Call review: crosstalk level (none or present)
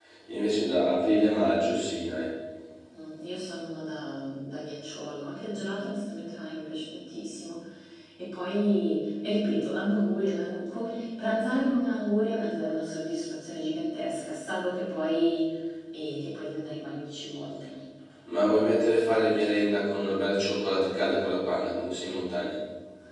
none